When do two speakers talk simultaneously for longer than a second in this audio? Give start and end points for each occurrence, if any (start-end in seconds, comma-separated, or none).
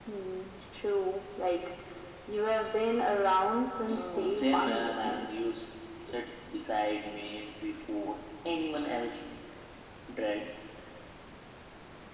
3.9-5.3